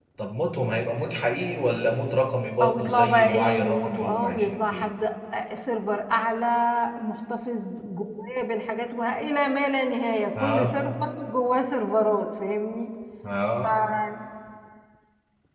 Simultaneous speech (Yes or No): Yes